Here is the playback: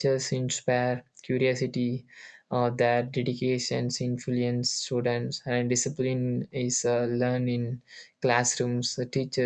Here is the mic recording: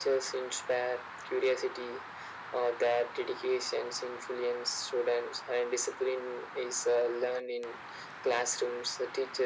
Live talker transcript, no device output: none

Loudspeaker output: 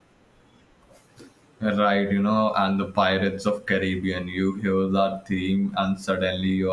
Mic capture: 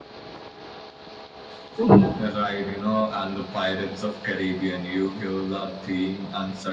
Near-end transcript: Mhm.

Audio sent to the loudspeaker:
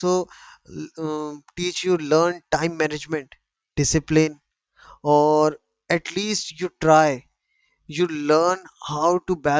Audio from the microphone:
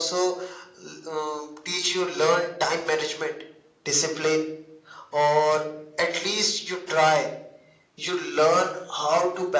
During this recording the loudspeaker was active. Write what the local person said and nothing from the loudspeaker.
none

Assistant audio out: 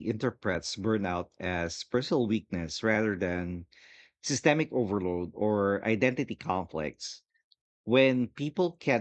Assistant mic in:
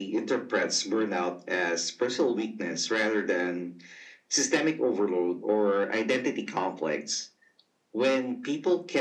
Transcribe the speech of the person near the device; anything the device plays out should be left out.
none

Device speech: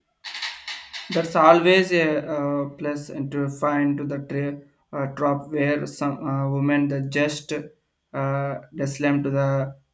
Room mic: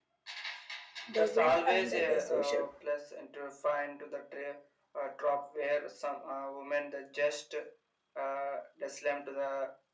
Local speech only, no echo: The wind and the social,

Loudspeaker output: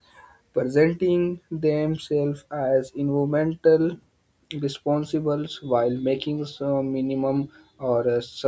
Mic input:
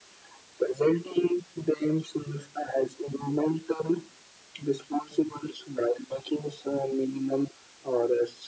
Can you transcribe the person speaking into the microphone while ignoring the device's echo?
none

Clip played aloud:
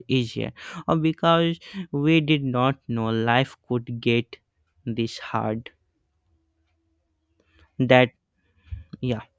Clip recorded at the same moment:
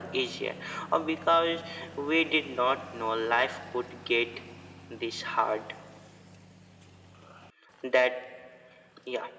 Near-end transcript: none

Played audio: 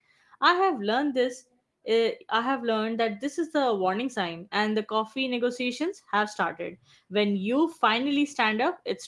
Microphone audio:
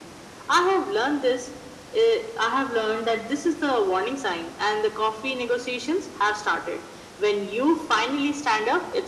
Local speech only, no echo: none

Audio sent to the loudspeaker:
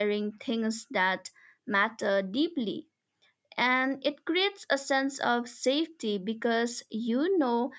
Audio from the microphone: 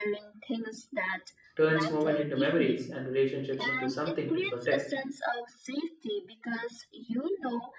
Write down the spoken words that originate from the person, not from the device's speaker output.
turns moments into memories and relationships into something to protect.

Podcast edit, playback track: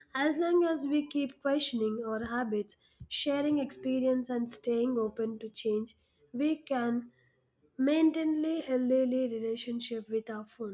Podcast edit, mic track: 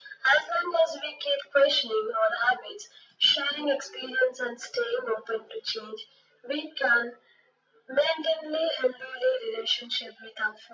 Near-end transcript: none

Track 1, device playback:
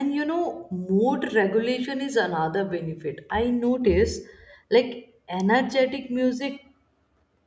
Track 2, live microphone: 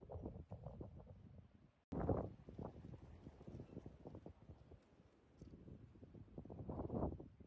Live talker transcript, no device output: none

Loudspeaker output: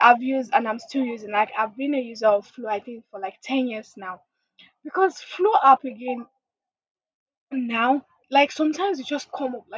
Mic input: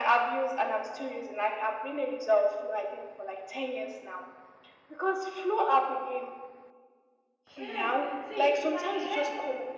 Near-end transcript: Yes. See, in my head,

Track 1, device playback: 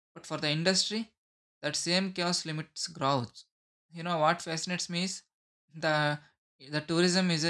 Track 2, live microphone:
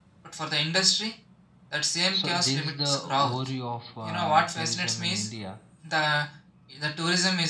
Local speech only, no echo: So this is the overview of uh, tourism in India.

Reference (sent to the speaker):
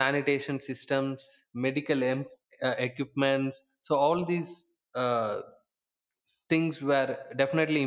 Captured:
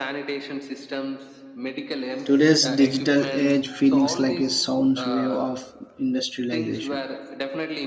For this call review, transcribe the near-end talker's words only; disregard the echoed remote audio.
Today's digital age feelings like a sound wave of industrialization.

